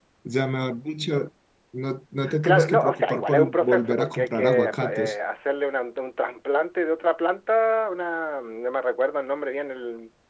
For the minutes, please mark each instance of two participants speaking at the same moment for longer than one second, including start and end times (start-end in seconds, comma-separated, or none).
2.4-5.2